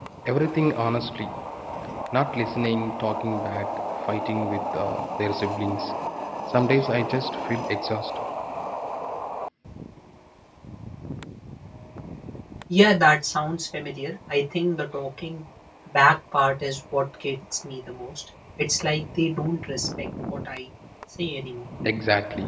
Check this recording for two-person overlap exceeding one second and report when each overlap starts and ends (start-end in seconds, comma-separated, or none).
none